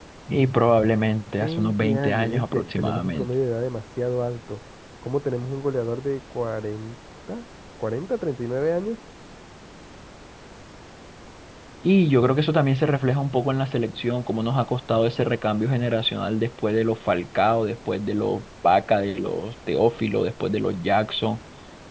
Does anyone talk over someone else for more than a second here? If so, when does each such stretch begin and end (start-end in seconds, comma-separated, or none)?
1.4-3.3